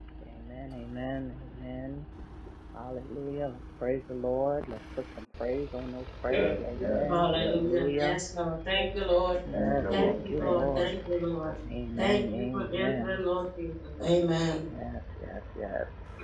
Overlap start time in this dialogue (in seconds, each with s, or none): 6.3 s